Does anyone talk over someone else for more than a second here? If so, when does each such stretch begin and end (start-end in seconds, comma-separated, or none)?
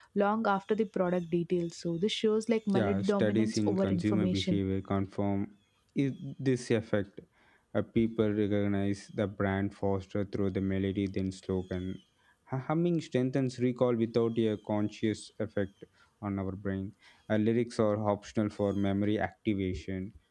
2.7-4.6